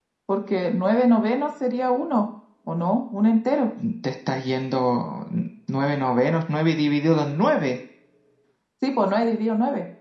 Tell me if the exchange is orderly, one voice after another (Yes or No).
Yes